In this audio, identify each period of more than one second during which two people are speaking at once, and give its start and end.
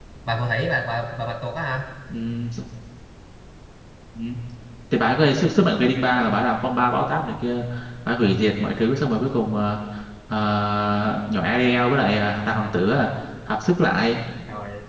none

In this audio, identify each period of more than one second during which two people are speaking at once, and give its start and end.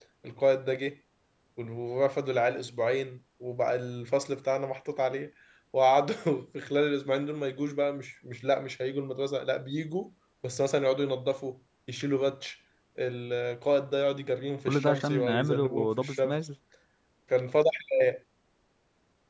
14.7-16.4

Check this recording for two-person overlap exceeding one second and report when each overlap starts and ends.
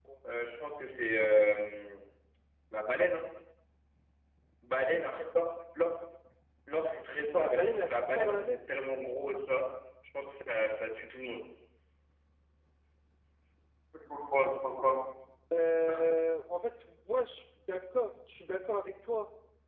7.3-8.6

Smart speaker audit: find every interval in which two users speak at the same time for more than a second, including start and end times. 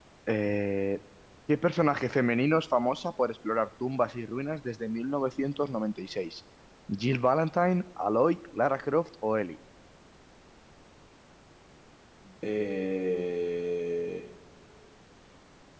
none

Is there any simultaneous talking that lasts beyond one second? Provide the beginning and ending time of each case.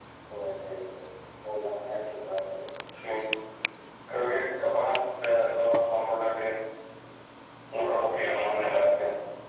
none

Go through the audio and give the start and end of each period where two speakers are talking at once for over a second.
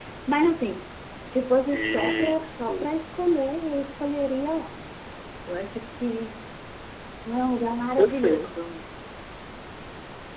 1.7-2.9

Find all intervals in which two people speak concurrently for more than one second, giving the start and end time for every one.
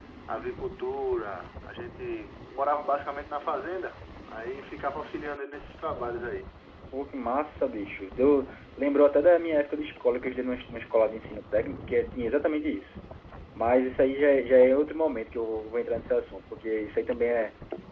none

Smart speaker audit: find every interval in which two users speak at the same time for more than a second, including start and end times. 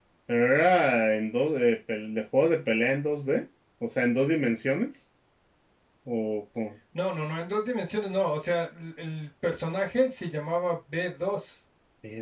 none

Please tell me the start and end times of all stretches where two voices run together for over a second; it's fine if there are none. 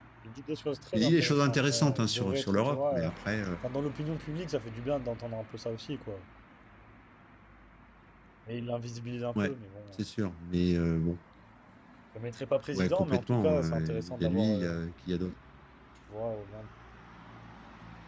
0.9-3.1, 12.7-14.8

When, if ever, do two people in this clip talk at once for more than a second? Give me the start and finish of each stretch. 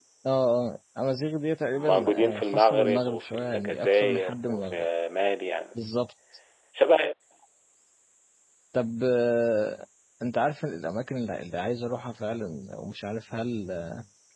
1.7-4.9

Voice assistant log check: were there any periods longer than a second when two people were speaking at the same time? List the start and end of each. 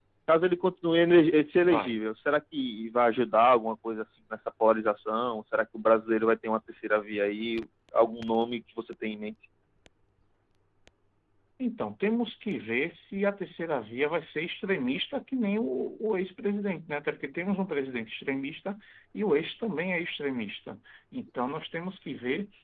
none

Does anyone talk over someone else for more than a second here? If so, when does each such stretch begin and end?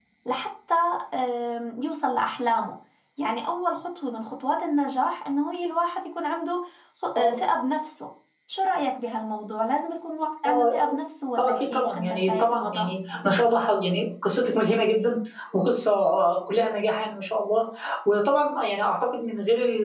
11.4-12.9

